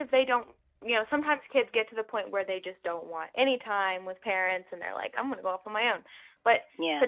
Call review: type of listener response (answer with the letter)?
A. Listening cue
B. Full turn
A